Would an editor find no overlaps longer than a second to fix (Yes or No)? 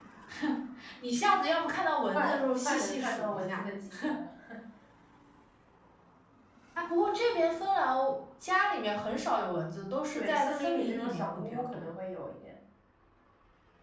No